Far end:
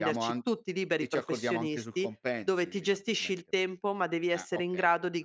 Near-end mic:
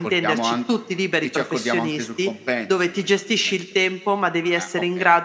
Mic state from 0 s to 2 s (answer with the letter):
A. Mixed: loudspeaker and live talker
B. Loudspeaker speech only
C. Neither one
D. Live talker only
B